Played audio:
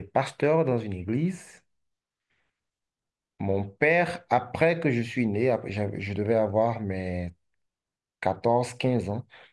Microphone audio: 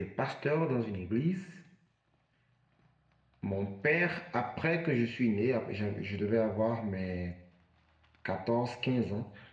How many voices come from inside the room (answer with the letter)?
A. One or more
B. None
B